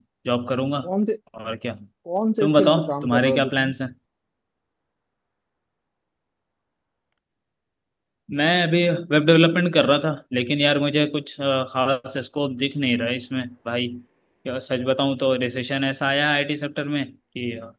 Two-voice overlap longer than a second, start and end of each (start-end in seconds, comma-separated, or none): 2.4-3.7